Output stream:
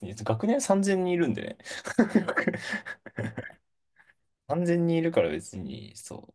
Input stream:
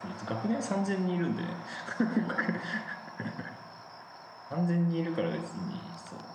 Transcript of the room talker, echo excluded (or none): none